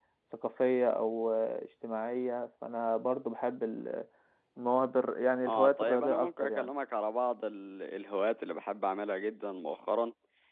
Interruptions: present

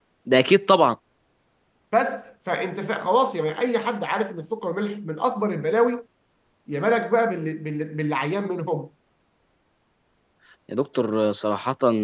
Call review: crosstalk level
none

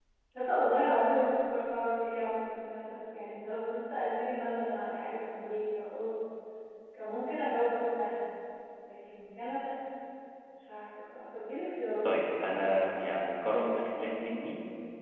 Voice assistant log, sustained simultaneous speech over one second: none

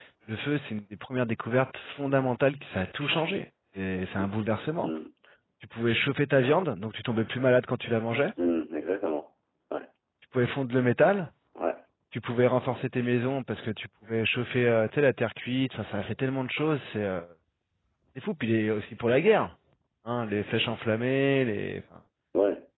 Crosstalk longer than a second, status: none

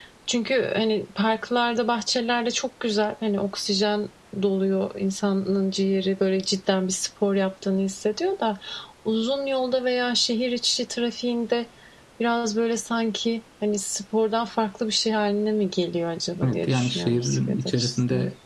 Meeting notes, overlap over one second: present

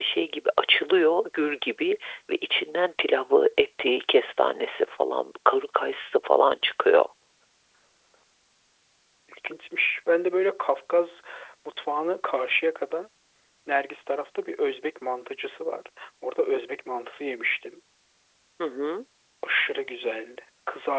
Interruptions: none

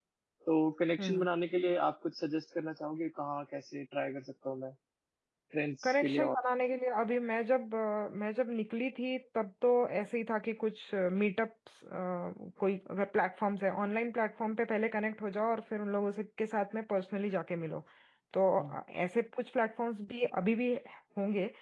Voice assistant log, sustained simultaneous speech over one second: none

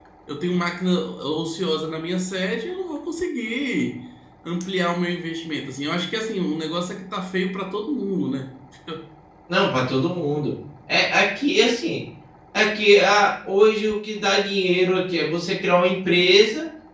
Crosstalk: none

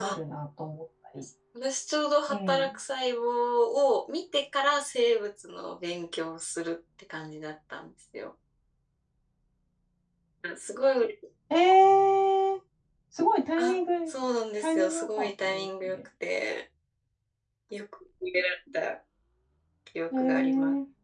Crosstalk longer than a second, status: present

